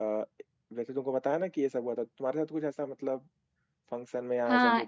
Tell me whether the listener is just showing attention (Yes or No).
No